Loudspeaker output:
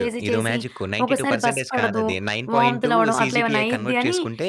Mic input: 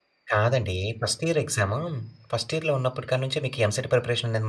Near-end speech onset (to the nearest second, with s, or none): 0 s